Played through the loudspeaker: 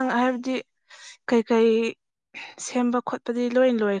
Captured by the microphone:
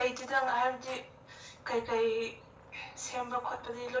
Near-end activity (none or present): none